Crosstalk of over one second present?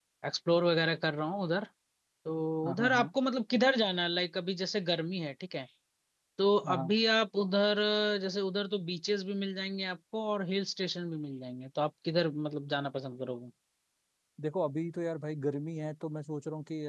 No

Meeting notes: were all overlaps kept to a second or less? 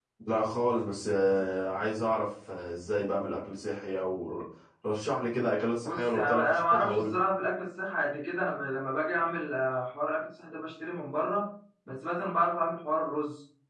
No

